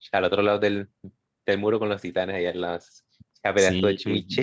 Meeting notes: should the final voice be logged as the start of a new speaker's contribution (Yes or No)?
Yes